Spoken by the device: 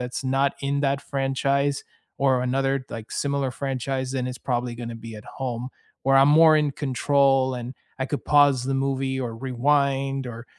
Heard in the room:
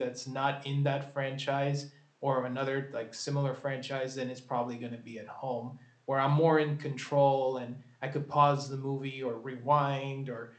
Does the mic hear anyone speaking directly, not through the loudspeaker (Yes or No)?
No